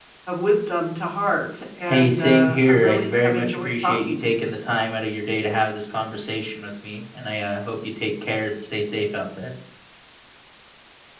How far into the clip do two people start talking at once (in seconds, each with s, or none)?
1.8 s